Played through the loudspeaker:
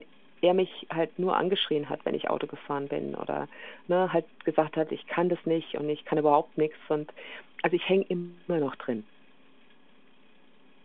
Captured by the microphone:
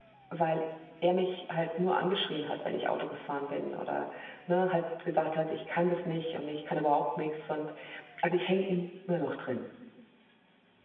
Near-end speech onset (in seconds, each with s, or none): none